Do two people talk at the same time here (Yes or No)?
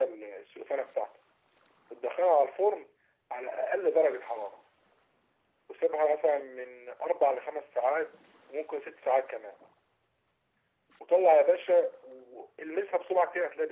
No